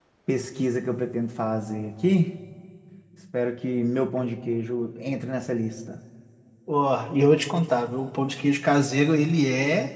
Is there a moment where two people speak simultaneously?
No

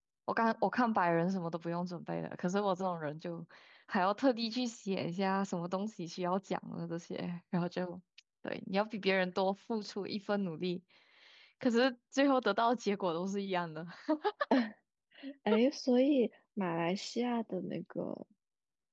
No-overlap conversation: Yes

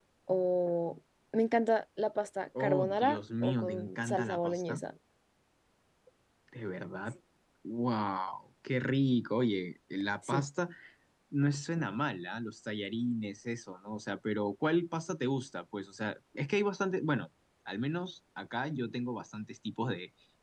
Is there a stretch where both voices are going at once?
Yes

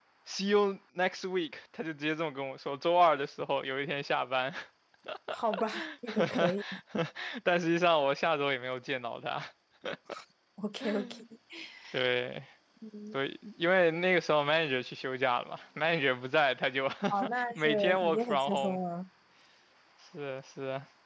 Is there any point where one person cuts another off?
Yes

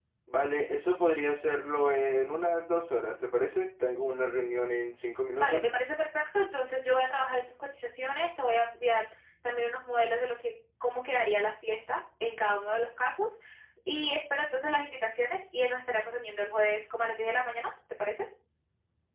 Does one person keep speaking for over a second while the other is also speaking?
No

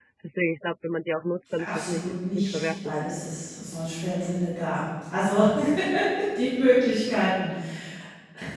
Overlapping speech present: Yes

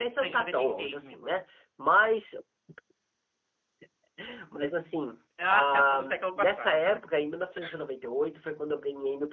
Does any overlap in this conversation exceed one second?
Yes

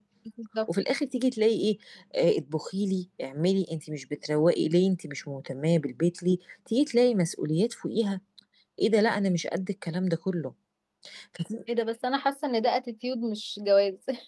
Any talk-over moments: No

